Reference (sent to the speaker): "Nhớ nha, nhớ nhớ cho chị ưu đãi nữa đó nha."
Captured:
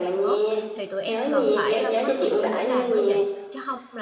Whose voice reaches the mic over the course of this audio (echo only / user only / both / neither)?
both